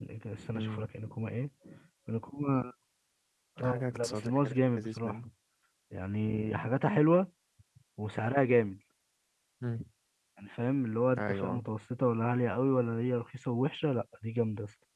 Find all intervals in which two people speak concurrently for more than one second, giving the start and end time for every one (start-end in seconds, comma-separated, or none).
3.6-5.2